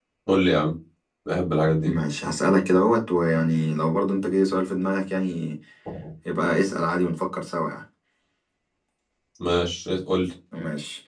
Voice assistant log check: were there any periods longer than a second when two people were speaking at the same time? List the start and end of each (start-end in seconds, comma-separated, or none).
none